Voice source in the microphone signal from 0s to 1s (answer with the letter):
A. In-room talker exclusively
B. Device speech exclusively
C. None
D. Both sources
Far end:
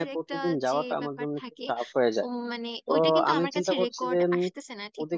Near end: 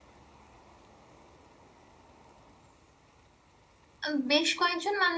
C